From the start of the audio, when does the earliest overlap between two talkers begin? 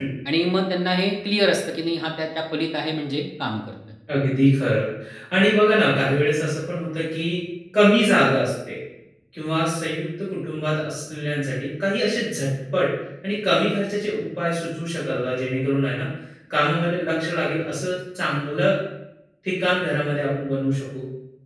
none

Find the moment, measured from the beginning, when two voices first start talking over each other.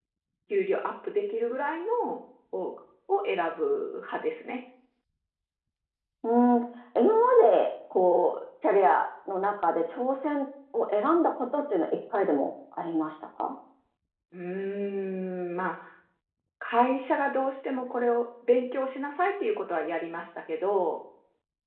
none

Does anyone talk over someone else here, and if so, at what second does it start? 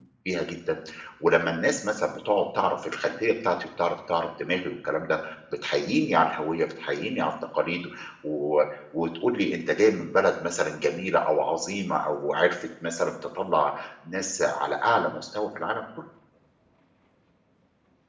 none

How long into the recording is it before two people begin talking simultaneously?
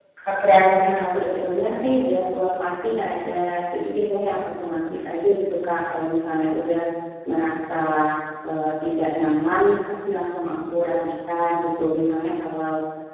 1 s

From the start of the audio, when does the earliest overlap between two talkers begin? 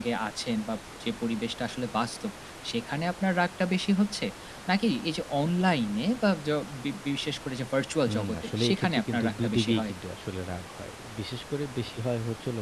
8 s

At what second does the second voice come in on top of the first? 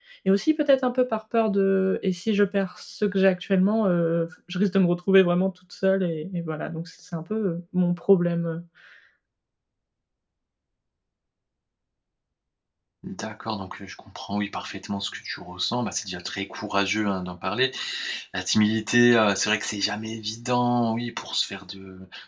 none

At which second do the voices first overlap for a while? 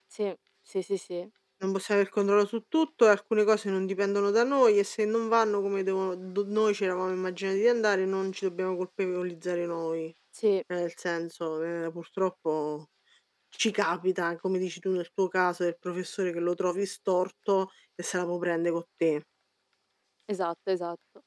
none

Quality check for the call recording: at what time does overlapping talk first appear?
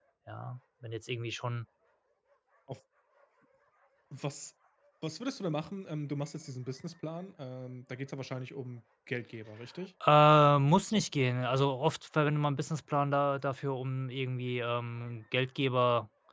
none

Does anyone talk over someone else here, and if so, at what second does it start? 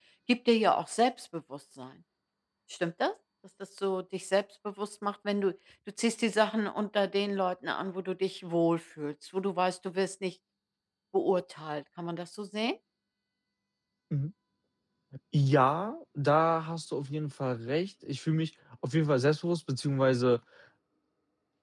none

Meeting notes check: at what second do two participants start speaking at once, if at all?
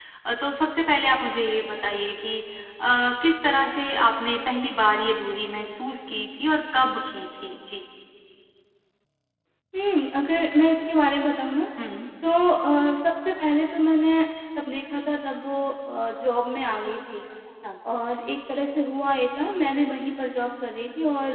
none

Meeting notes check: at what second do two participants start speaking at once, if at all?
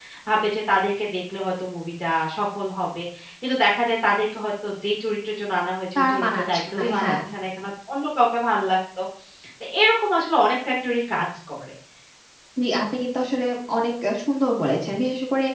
6 s

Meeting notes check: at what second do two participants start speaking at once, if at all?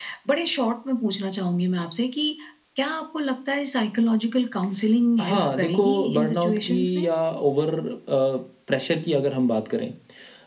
5 s

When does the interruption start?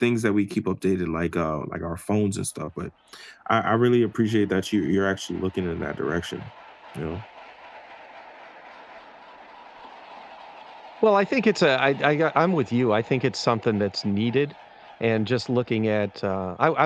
none

